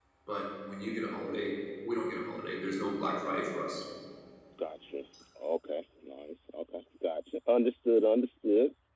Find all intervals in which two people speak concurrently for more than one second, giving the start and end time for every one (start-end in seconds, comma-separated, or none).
none